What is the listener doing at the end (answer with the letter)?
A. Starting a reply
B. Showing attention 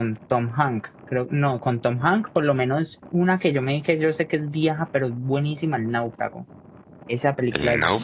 B